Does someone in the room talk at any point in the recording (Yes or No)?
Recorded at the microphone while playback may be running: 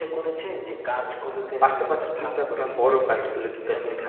Yes